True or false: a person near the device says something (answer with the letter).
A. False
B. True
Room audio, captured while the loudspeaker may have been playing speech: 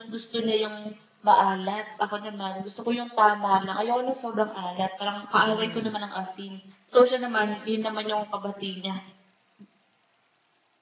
B